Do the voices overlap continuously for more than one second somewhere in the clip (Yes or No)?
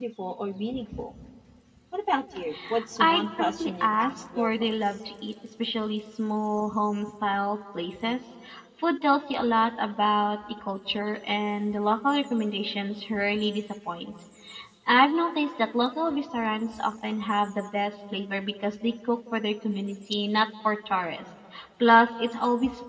Yes